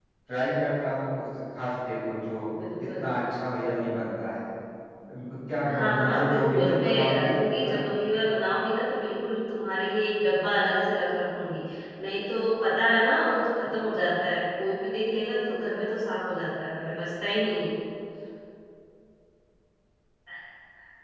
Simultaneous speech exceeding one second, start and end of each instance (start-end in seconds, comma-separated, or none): 5.7-7.8